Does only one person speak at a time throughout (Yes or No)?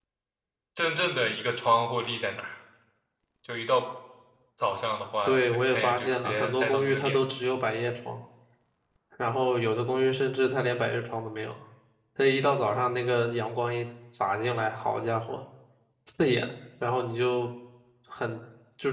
No